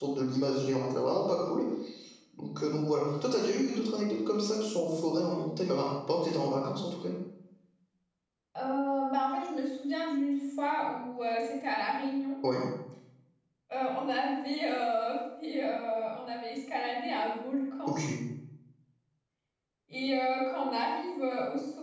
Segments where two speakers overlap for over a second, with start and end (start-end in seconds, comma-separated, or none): none